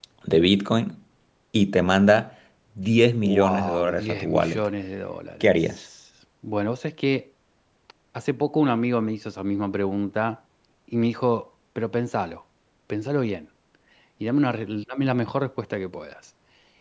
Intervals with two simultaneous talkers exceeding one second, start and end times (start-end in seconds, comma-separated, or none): 3.2-4.7